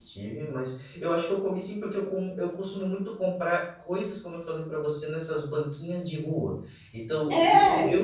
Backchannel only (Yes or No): Yes